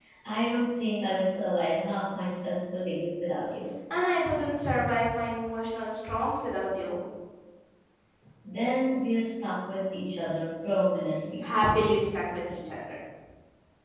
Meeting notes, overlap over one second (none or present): none